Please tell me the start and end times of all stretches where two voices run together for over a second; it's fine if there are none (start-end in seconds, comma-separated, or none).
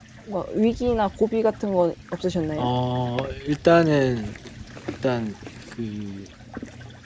none